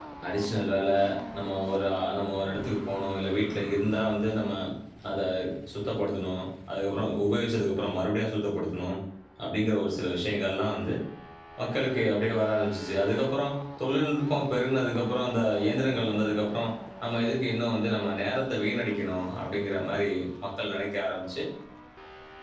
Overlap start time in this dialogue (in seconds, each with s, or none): none